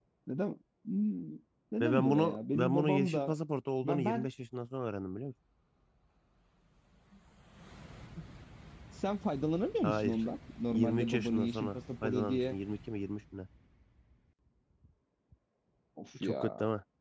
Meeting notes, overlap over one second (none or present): present